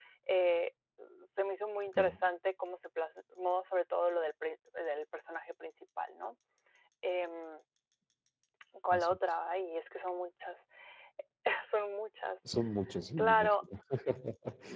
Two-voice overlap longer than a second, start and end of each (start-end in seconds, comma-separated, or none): none